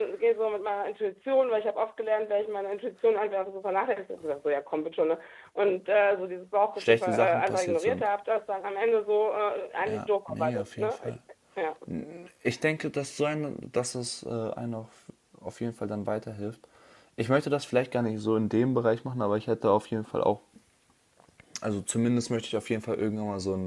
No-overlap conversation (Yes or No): No